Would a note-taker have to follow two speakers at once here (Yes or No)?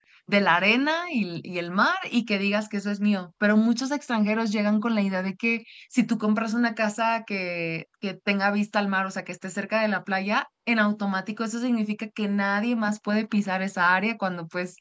No